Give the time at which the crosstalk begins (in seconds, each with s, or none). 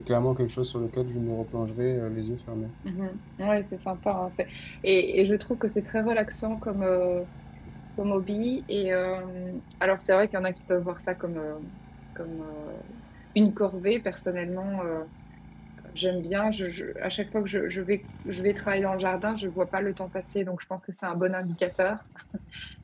none